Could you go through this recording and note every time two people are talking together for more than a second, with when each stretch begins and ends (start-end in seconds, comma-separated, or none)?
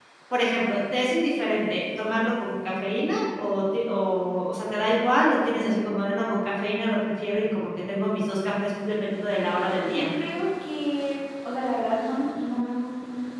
none